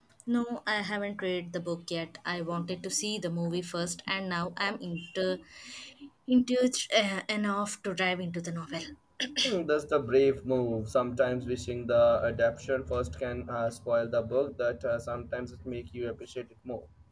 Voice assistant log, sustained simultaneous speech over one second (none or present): none